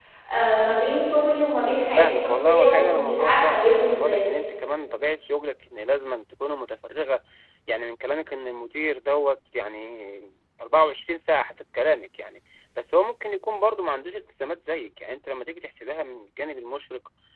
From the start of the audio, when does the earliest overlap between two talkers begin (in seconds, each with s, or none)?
2.0 s